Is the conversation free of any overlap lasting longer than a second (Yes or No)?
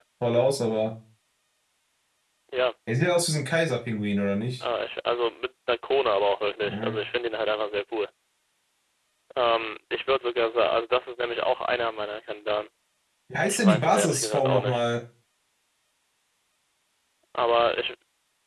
No